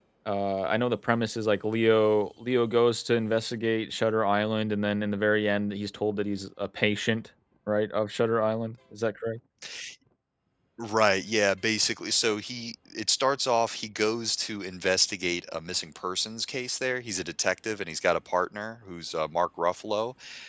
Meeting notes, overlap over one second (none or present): none